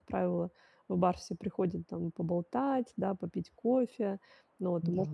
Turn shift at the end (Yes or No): No